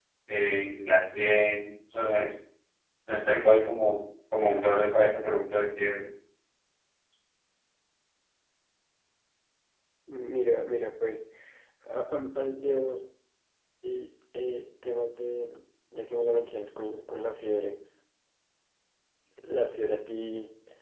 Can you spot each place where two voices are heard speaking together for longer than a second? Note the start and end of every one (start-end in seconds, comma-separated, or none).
none